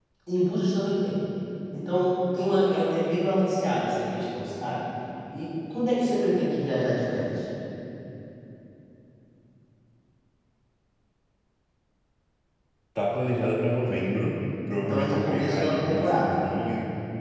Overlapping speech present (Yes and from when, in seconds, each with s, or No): Yes, from 14.7 s